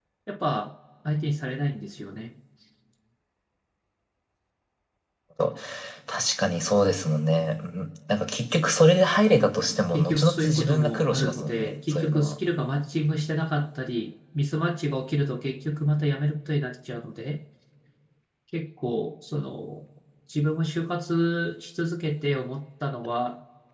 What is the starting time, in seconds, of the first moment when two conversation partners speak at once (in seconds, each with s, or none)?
9.9 s